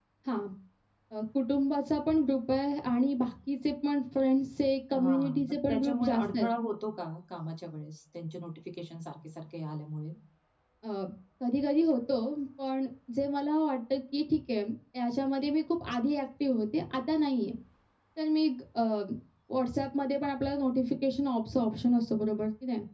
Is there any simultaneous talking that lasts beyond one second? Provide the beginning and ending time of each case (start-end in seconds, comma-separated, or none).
4.9-6.5